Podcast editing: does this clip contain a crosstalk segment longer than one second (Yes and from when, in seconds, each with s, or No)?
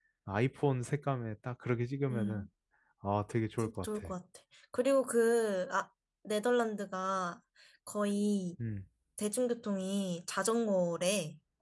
No